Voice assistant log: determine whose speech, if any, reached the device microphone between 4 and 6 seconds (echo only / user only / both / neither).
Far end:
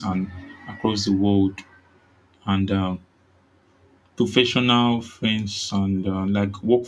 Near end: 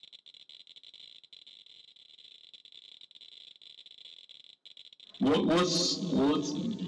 user only